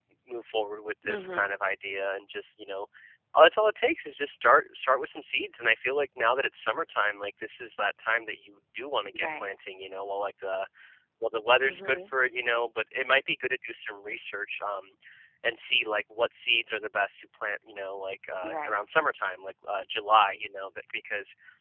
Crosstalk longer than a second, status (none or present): none